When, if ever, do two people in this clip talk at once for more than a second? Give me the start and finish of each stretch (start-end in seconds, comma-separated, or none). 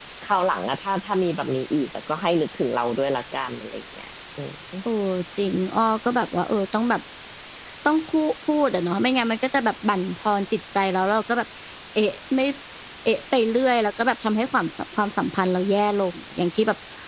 none